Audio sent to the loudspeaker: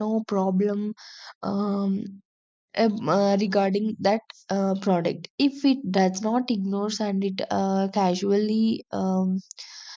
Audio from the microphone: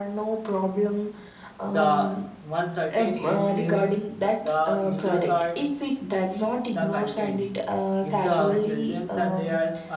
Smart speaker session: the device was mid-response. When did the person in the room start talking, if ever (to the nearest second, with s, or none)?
2 s